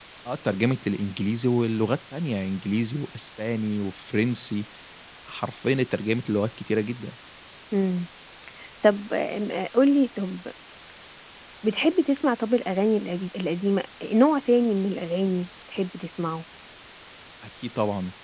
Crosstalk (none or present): none